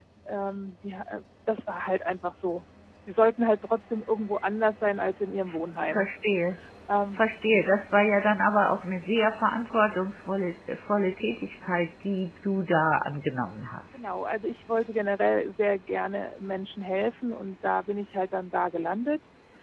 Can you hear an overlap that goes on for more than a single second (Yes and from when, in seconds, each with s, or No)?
No